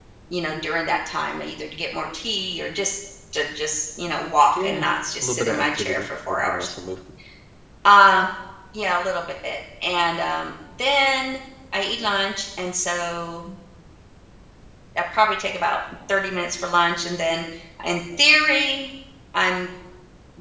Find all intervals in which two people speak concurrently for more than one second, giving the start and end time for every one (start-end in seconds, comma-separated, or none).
5.2-6.7